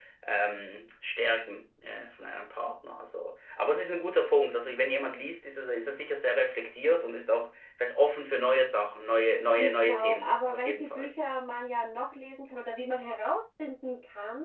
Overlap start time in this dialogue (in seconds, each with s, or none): 9.6 s